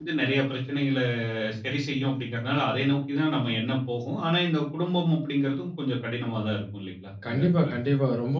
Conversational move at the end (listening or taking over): taking over